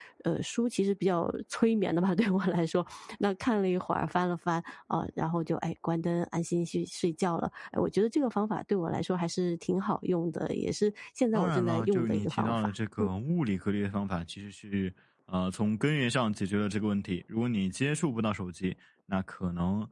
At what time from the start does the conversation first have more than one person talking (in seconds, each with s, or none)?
11.3 s